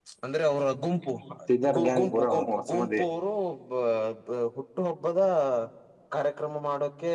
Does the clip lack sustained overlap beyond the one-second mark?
No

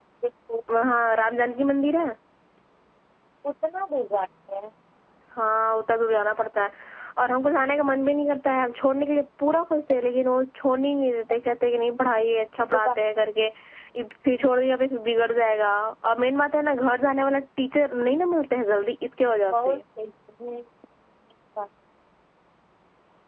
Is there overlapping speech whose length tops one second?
No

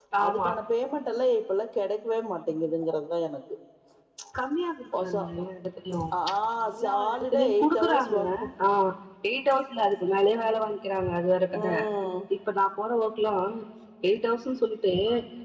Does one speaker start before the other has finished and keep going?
Yes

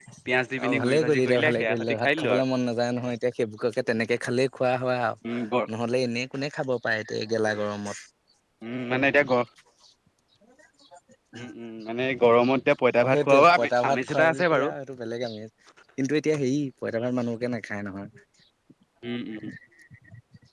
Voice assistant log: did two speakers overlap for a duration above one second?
Yes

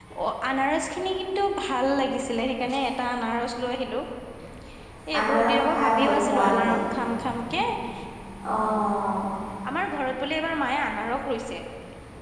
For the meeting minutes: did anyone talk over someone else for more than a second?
Yes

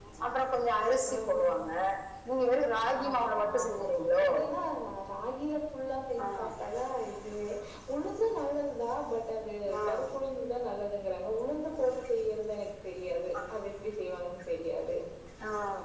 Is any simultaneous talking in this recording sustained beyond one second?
Yes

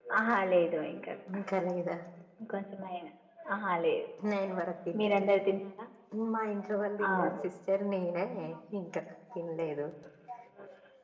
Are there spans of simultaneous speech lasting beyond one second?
No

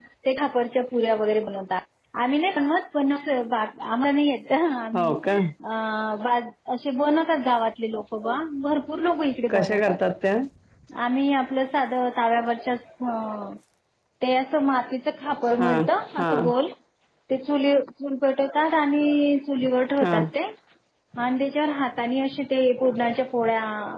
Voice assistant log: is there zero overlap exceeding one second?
Yes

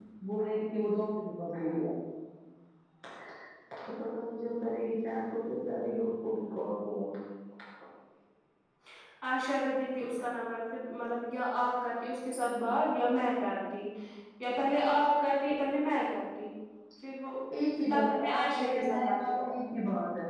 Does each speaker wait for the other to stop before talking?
No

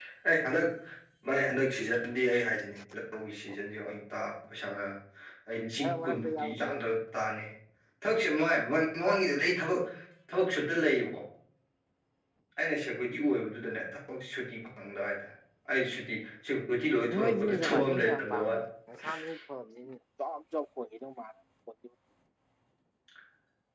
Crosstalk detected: Yes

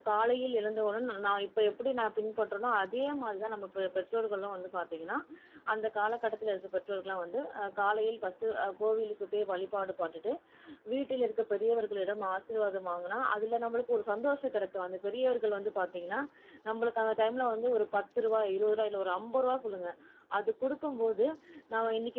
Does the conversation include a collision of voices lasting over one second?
No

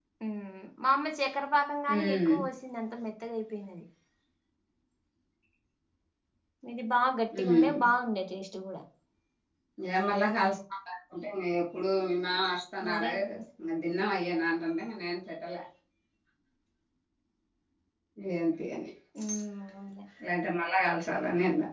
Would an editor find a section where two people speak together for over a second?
No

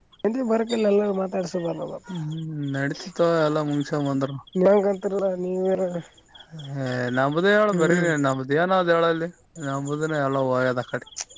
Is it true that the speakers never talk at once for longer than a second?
Yes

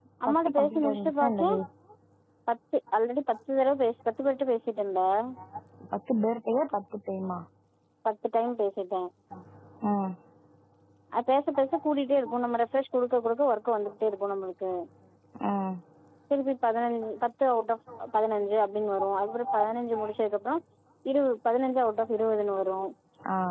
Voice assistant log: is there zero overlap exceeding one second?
No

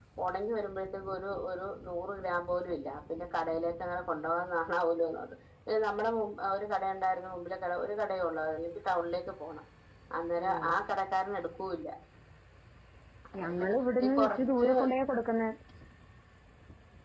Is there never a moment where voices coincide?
No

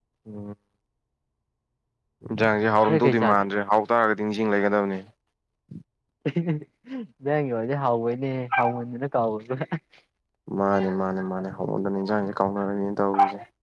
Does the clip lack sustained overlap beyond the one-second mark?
Yes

